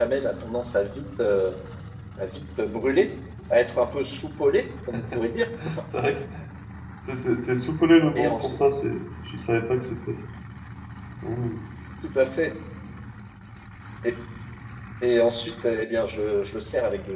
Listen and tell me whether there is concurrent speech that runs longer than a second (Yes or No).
No